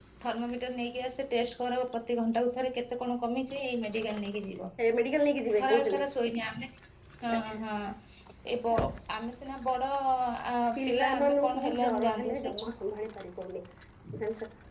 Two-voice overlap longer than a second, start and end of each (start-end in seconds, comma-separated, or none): 10.9-12.7